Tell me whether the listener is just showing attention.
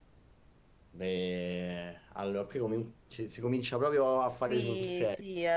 No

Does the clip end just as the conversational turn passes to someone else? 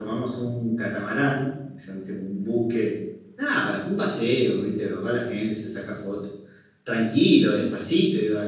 No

